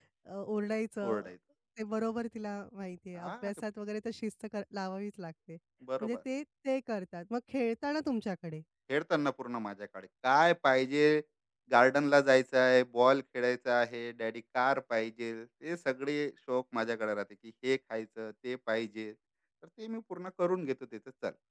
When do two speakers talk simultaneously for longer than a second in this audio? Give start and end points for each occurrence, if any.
none

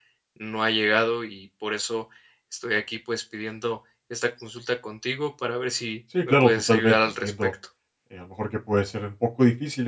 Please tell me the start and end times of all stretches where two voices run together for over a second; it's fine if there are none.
6.2-7.5

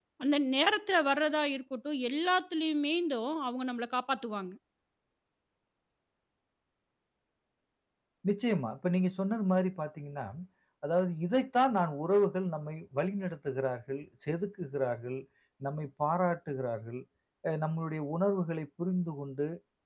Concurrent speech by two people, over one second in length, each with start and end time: none

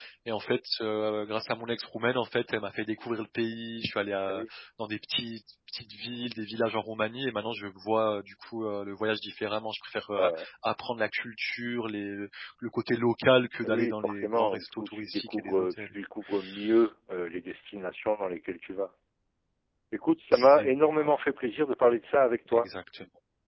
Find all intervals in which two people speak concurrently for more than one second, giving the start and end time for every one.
13.6-15.9

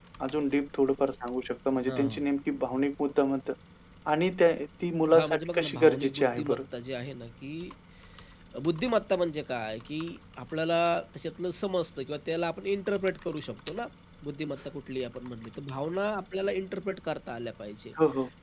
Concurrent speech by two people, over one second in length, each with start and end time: 5.1-6.6

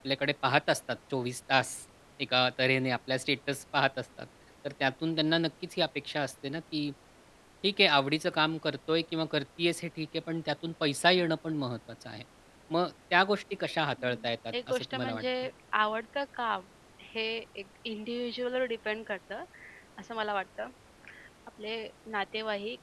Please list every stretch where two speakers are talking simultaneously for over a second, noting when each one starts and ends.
14.0-15.2

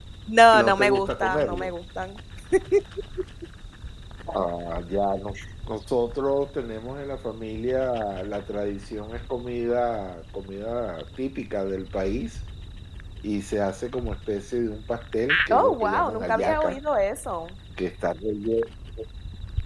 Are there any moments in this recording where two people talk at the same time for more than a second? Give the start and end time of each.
0.5-1.7, 15.5-16.8

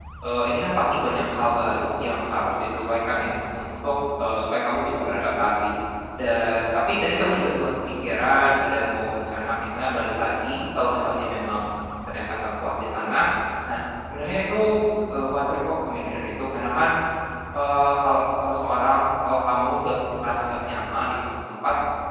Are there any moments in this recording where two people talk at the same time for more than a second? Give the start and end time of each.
none

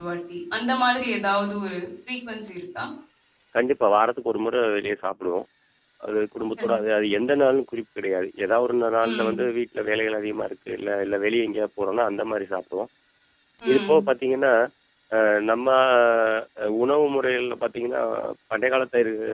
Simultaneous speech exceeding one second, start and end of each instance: none

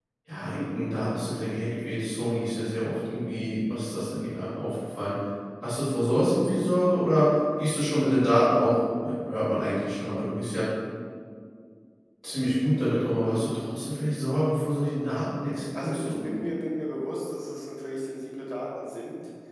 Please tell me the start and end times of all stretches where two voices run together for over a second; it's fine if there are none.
none

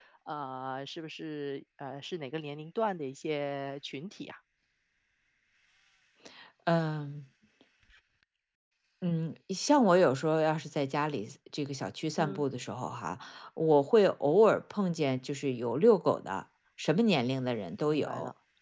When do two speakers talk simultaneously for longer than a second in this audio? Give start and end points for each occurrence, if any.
none

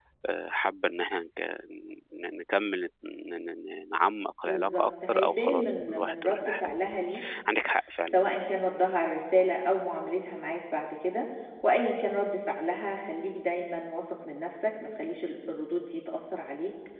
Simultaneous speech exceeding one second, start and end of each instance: 4.4-6.8

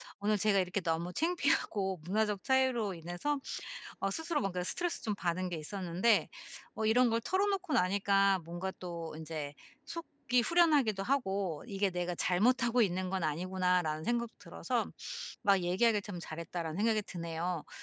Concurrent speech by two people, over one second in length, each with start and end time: none

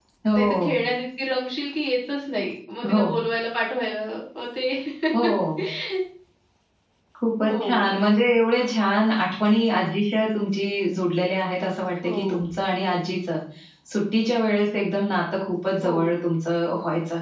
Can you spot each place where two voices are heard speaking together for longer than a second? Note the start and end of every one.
none

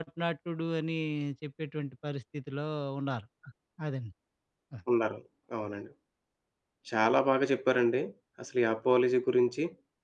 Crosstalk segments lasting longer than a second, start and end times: none

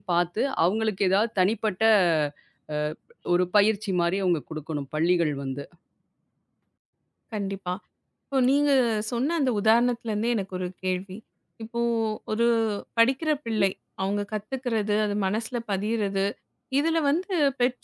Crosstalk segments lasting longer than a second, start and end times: none

